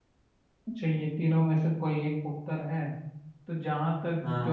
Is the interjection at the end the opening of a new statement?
No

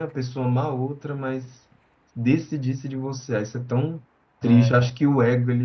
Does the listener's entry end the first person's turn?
No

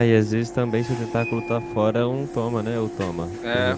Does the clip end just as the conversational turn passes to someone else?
Yes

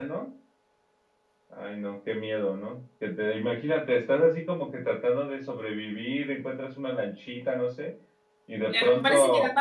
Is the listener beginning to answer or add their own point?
Yes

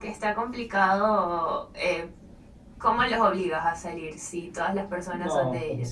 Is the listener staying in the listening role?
No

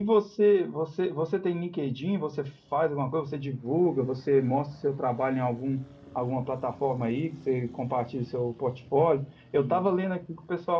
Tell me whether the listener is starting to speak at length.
No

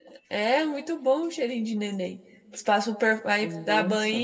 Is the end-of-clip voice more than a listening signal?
No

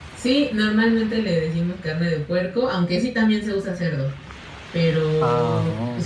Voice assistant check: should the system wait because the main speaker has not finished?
Yes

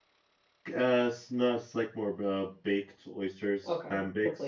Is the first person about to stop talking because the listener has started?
Yes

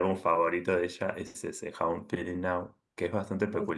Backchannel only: Yes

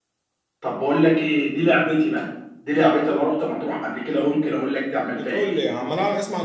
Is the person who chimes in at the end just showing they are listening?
No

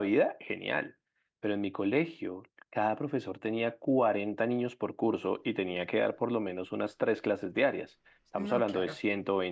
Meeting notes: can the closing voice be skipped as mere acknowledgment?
Yes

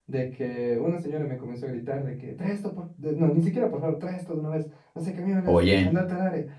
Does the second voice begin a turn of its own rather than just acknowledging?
No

